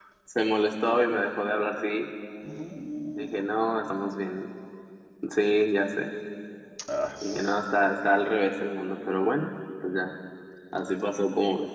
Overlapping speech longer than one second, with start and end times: none

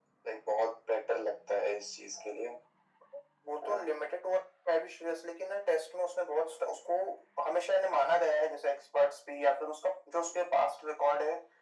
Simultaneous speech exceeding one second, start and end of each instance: none

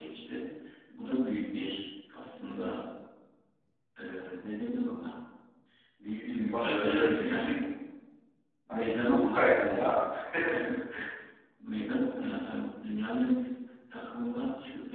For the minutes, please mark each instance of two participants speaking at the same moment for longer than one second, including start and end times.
6.1-7.6, 8.7-10.0

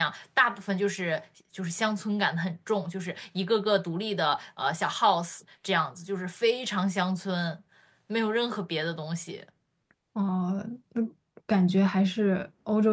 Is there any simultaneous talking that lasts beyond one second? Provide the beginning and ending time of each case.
none

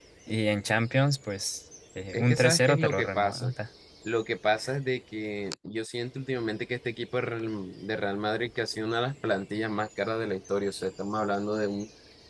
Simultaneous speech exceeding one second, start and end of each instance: 2.1-3.5

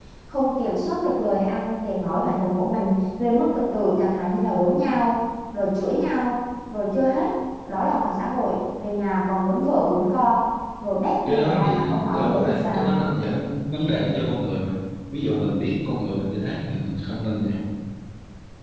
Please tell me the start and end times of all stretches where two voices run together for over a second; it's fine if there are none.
11.3-12.9

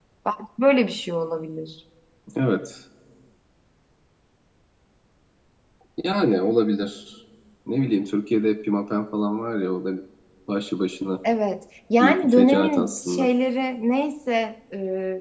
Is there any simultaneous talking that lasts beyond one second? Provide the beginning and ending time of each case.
12.0-13.3

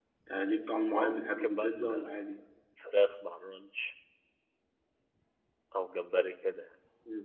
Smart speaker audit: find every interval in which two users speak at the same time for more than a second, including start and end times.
0.9-2.1

